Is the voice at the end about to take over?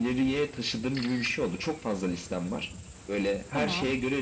No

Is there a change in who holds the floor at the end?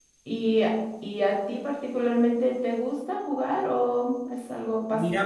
Yes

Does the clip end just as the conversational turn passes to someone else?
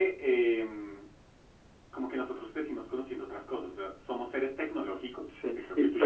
Yes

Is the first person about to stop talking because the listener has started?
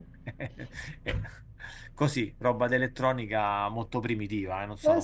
Yes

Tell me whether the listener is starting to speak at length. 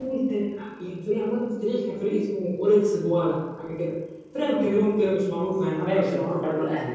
Yes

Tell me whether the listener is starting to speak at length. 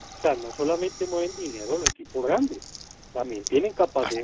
No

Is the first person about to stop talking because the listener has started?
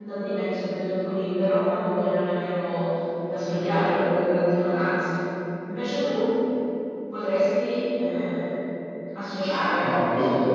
Yes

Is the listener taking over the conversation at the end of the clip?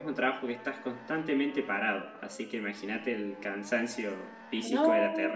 Yes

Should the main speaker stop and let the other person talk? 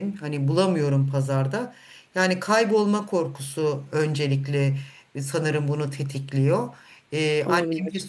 No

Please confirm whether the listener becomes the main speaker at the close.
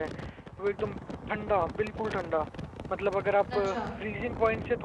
No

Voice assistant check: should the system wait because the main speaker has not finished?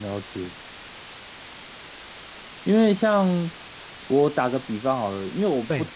Yes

